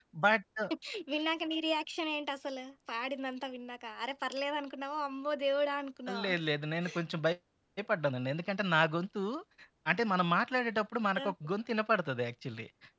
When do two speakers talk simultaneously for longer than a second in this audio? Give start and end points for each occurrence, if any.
none

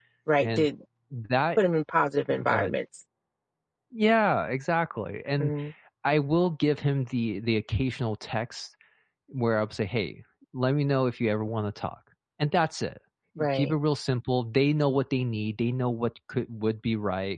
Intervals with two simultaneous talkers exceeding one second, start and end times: none

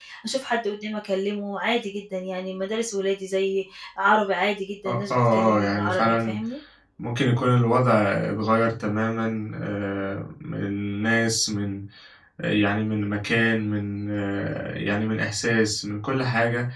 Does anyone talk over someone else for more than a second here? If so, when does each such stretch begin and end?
4.9-6.4

